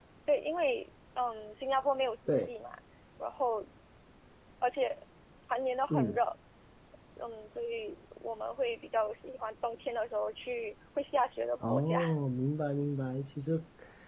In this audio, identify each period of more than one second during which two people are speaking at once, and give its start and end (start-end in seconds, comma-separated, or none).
none